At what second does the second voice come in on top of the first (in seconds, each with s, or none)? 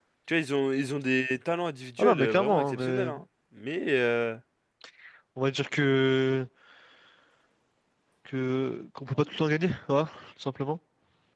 2.0 s